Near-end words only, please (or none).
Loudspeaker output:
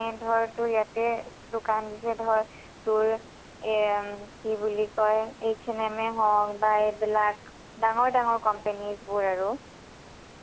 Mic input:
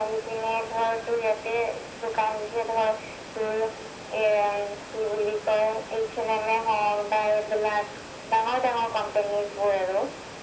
none